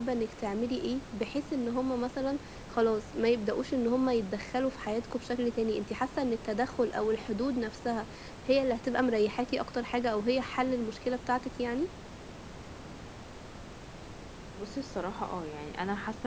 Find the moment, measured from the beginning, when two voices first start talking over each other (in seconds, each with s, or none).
none